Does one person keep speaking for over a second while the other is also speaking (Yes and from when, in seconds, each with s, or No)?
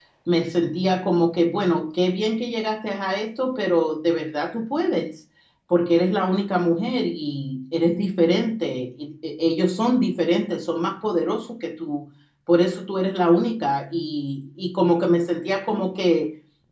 No